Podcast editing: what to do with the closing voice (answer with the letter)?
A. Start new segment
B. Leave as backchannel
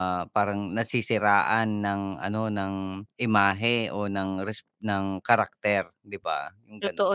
A